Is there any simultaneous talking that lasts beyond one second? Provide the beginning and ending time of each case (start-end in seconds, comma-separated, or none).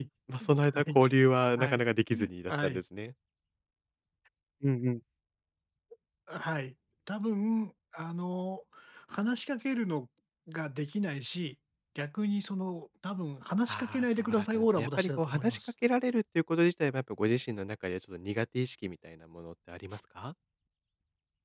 13.7-15.6